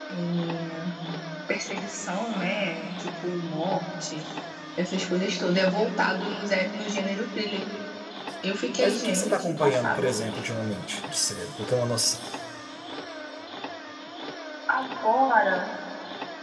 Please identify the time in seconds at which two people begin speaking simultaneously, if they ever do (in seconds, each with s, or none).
8.8 s